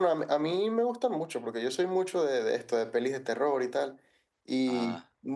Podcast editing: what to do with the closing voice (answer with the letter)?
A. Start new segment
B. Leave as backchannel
B